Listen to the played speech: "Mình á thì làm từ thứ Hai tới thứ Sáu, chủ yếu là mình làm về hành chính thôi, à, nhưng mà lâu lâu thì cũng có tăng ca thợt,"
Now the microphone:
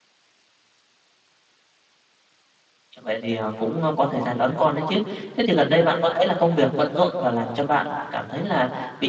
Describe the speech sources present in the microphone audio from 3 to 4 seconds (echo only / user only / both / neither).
user only